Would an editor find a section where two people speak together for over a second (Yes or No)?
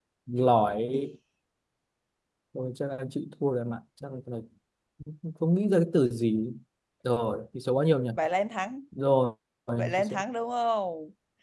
No